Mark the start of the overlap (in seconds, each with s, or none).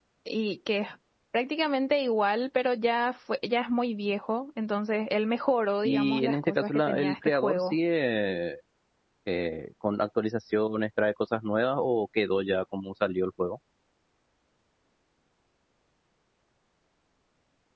5.8 s